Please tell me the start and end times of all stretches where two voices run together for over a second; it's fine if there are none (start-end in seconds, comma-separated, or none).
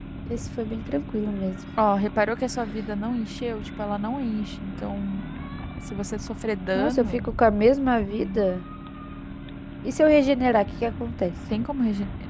none